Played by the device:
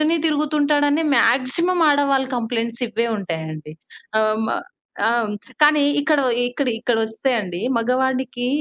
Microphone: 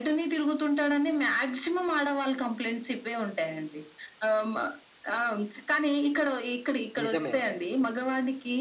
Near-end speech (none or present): present